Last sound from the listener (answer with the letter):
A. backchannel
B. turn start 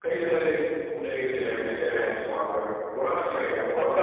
B